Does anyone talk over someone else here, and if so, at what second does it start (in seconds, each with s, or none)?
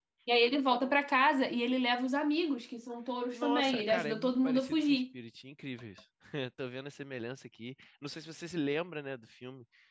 3.3 s